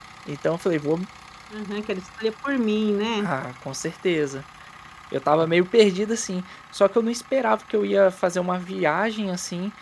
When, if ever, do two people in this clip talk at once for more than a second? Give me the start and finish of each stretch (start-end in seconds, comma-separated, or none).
none